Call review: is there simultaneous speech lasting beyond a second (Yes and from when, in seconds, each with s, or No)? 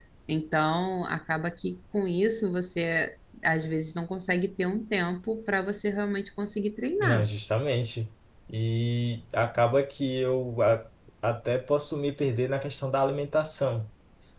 No